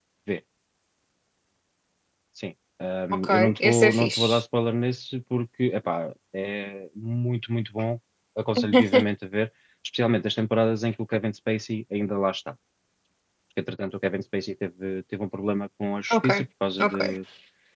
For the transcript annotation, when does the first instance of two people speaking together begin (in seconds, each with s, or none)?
3.1 s